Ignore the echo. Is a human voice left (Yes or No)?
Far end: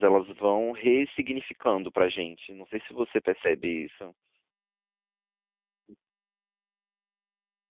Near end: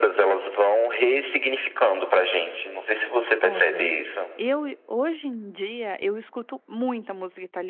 Yes